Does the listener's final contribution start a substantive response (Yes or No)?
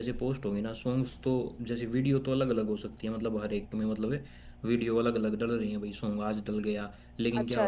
No